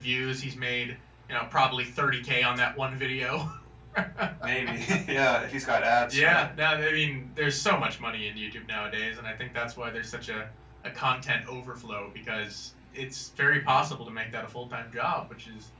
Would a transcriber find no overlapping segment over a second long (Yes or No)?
Yes